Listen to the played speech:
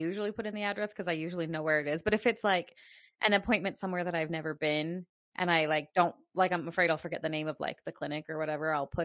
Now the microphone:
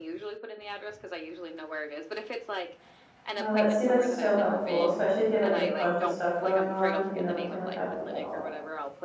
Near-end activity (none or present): present